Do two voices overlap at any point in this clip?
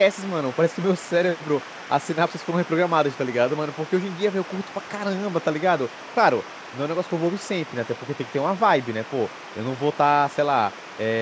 No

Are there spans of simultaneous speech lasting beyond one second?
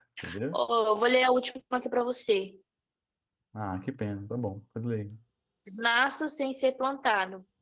No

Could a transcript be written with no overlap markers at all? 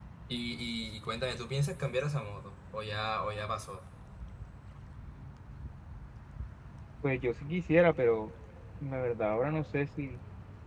Yes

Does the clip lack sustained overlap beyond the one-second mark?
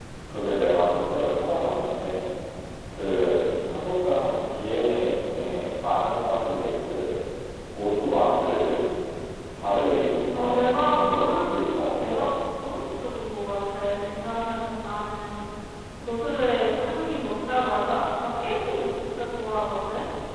No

